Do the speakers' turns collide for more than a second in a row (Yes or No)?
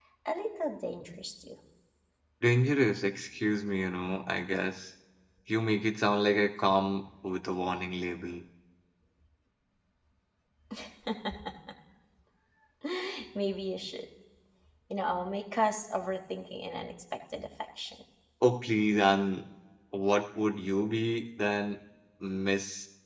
No